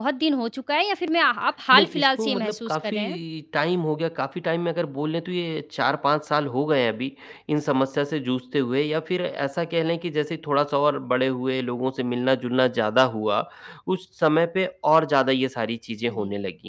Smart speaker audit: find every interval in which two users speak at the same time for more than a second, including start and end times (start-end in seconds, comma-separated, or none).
1.7-3.0